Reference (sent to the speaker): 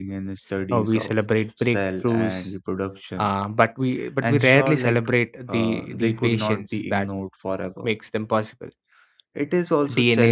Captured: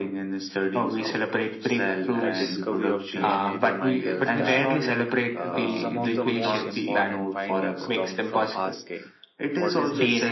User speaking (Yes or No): Yes